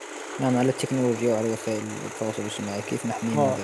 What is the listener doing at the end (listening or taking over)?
taking over